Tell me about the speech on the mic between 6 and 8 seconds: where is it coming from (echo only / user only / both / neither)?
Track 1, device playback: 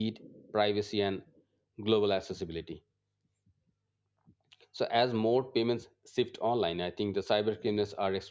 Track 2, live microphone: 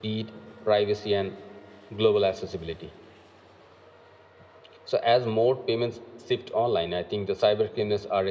echo only